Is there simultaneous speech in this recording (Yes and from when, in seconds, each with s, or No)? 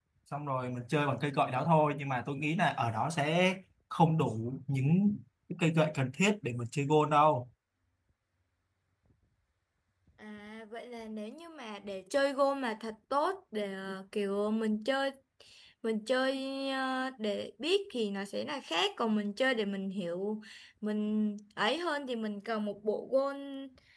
No